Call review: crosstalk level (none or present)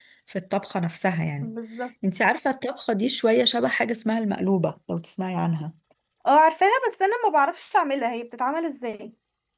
none